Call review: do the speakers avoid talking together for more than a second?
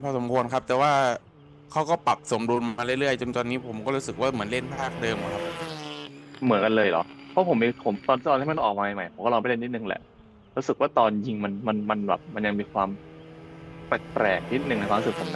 Yes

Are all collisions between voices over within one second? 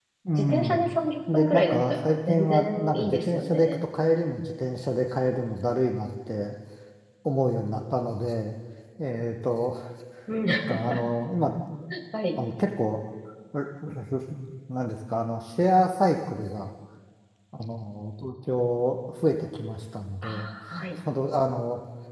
No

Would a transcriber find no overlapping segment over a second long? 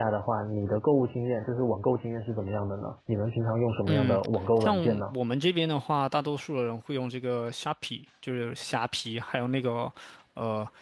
Yes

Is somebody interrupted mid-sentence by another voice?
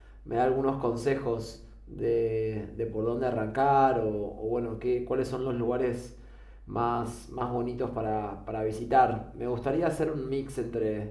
No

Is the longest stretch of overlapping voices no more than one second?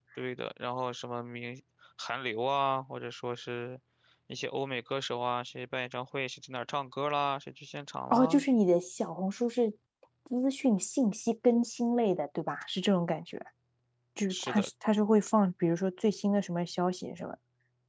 Yes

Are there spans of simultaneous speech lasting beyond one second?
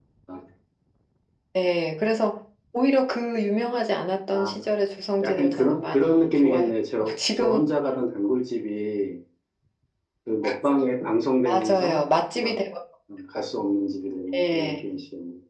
Yes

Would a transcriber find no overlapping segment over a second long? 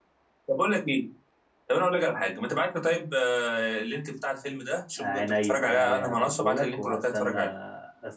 No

